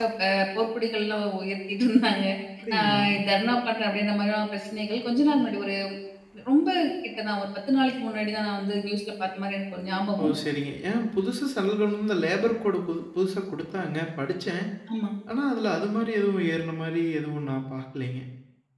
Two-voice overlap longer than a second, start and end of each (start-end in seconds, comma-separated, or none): none